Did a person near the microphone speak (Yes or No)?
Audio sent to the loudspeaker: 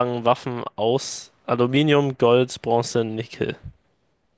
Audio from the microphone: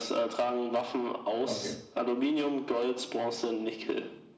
Yes